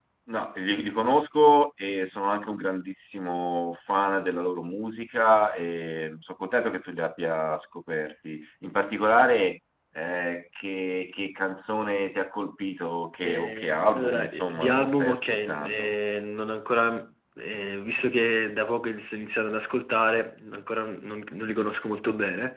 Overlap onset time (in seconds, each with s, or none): 13.2 s